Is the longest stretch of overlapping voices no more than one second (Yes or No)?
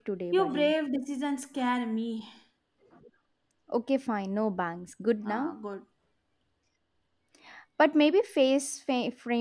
Yes